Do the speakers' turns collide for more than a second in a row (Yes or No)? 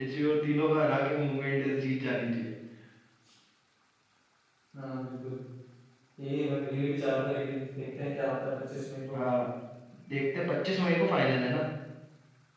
No